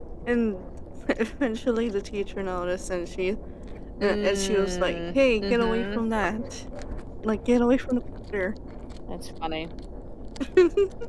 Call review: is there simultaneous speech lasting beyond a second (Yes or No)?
Yes